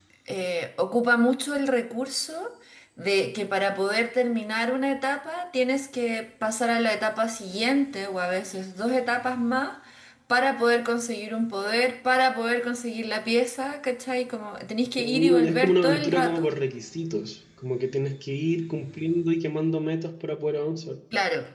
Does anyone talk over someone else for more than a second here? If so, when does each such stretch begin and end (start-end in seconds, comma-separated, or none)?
15.0-16.5